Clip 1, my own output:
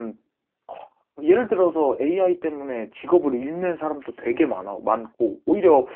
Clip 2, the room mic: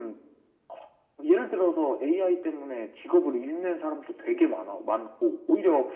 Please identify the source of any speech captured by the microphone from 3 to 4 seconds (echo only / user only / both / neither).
echo only